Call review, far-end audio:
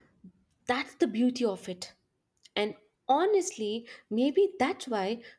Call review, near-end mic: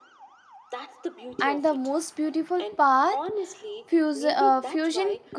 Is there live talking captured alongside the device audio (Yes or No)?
Yes